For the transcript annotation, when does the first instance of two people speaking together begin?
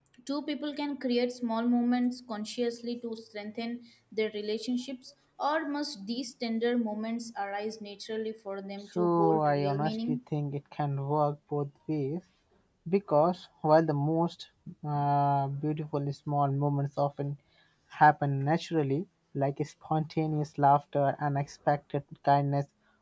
9.0 s

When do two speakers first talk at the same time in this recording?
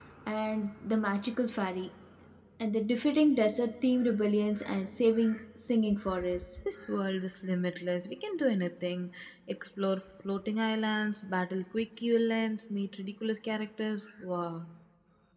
none

